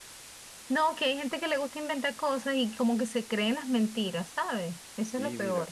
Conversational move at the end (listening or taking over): taking over